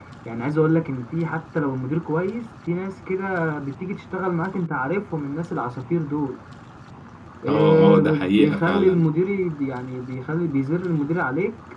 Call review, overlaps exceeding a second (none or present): present